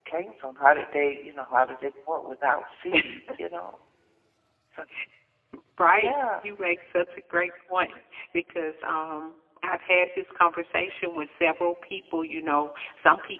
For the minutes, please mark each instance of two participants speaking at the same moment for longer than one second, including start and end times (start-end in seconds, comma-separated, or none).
none